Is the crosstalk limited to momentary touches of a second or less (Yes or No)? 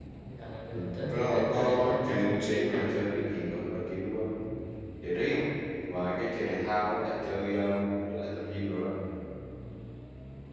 No